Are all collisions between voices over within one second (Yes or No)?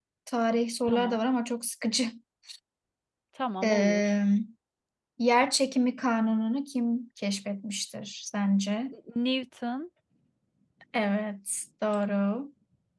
Yes